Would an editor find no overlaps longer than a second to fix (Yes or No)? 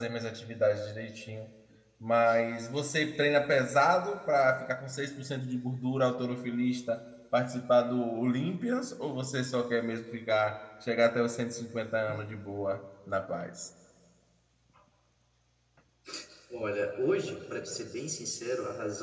Yes